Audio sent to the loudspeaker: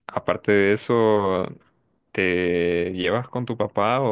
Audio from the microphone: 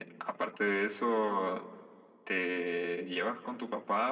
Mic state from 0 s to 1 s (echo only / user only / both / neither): echo only